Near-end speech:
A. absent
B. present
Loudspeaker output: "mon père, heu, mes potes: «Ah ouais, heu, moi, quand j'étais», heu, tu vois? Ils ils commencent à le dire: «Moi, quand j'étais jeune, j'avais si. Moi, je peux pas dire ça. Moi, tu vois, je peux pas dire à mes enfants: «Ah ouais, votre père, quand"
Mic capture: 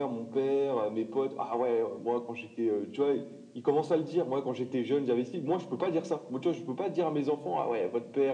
A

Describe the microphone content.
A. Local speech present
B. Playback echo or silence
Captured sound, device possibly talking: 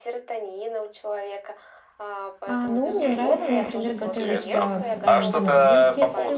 A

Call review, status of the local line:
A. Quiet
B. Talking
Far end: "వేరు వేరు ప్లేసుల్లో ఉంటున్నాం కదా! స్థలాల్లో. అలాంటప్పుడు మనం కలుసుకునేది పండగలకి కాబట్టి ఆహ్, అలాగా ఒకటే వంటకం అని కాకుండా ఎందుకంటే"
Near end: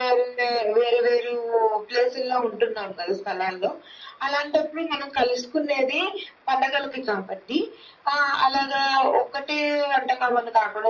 A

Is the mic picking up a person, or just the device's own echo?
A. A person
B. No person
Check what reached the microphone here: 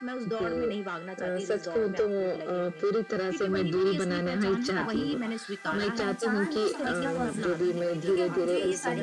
A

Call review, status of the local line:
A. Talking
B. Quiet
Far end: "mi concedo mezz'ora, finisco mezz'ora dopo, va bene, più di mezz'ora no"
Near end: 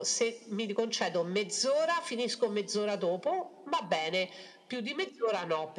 B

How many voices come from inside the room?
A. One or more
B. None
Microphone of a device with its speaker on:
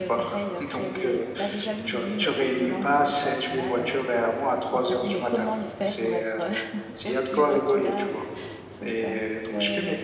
A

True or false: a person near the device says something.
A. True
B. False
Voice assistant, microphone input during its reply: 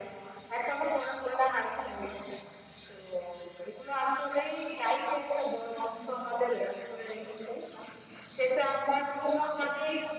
B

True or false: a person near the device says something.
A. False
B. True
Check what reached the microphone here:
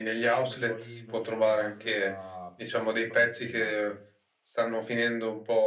B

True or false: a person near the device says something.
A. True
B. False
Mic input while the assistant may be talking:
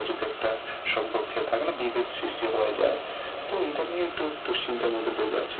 B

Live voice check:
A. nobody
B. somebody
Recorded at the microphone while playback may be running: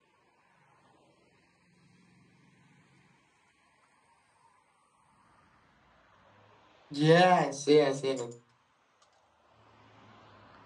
B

